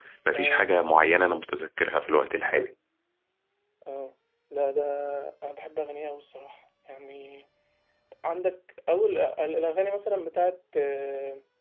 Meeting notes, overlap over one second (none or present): none